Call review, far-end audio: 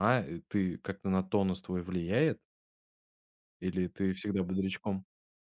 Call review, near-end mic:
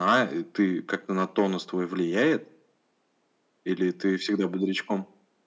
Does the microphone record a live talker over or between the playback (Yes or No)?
No